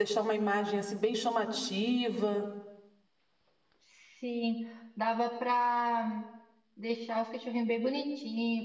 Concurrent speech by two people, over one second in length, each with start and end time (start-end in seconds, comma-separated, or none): none